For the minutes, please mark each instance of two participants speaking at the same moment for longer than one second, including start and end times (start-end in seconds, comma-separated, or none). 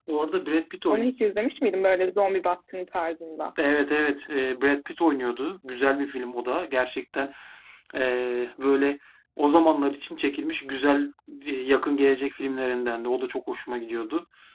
none